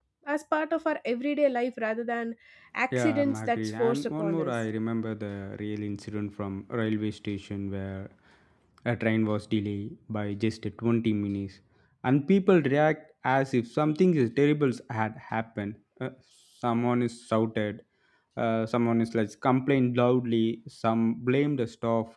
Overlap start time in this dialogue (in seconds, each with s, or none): 2.9 s